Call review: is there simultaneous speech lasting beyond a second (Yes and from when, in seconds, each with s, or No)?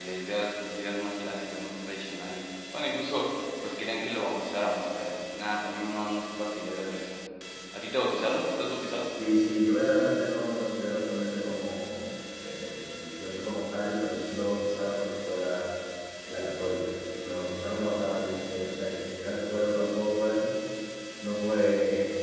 No